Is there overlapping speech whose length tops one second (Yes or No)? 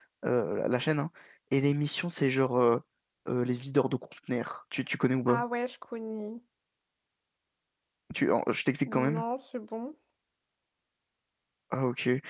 No